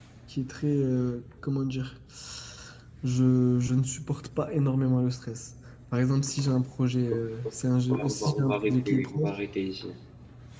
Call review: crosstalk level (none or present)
present